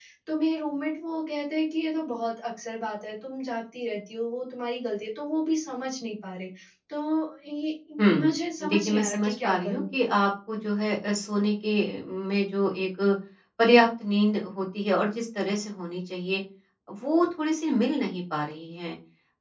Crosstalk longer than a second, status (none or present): present